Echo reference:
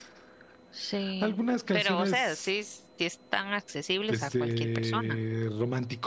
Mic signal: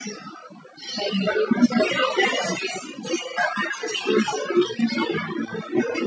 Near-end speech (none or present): none